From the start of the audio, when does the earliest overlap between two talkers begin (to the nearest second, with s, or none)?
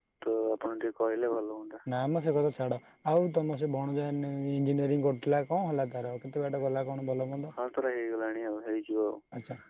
none